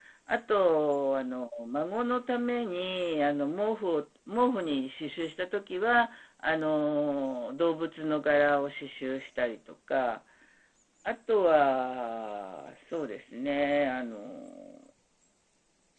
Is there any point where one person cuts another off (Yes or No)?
No